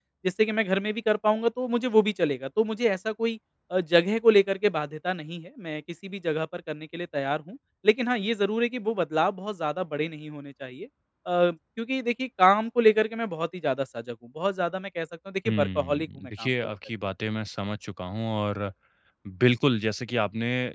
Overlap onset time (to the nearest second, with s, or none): 15 s